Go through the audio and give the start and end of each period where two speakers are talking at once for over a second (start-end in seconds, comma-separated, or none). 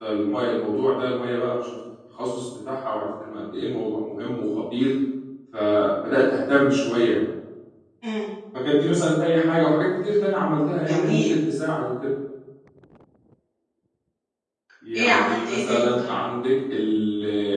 14.9-16.1